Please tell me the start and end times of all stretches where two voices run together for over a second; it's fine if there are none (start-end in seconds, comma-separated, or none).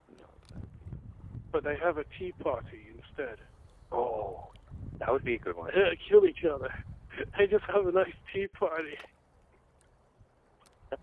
none